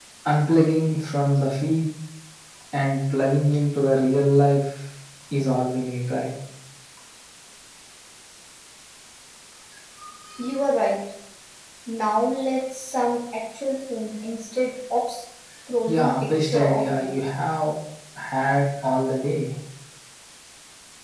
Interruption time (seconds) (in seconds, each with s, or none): 15.9 s